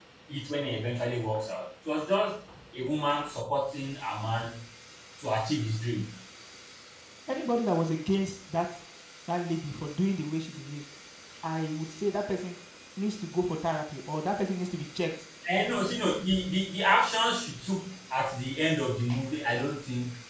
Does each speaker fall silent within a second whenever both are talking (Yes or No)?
Yes